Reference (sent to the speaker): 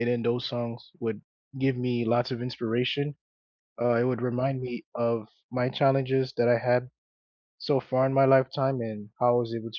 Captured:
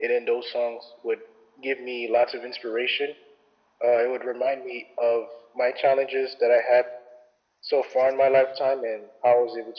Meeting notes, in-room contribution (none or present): none